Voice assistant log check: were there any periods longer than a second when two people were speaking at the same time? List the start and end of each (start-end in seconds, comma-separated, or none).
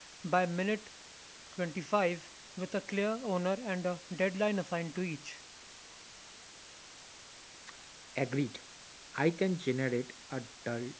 none